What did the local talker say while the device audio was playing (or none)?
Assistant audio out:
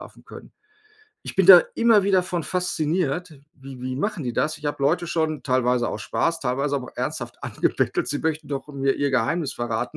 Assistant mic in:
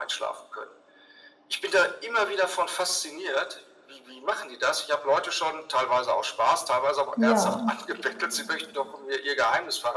Ja.